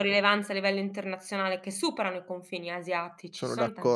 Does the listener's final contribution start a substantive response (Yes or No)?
No